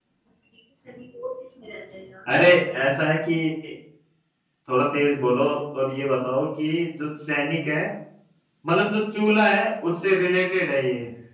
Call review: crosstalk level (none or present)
none